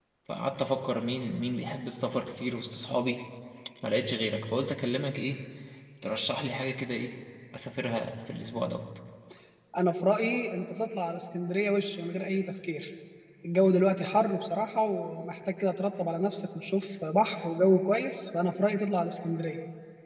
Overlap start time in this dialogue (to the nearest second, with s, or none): none